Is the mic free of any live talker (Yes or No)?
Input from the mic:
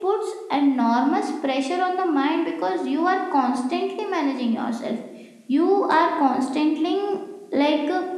Yes